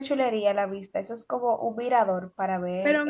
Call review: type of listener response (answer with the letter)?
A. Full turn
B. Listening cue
A